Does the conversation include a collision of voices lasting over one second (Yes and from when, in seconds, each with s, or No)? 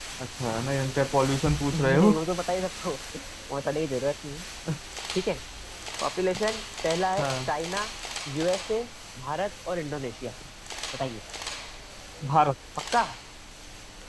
No